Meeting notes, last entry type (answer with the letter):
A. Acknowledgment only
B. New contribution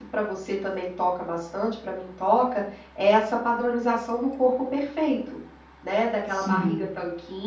A